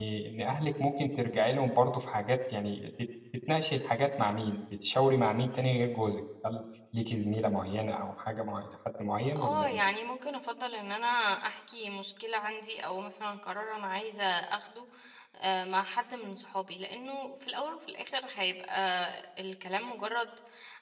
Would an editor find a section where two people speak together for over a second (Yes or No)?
No